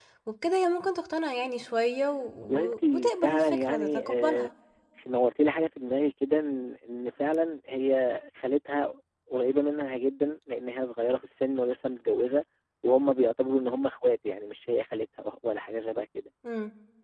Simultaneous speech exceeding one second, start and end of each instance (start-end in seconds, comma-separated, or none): 2.4-4.5